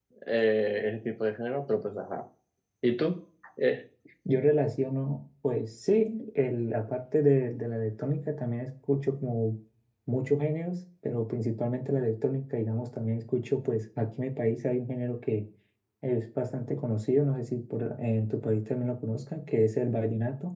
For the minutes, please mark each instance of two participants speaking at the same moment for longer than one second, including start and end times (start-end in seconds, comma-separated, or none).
none